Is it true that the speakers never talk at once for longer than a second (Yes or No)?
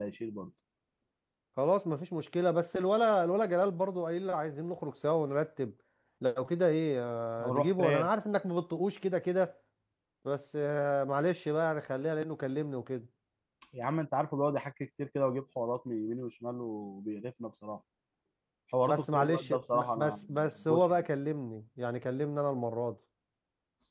No